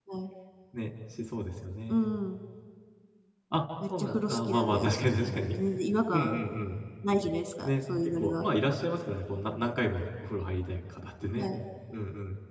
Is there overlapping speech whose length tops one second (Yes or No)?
Yes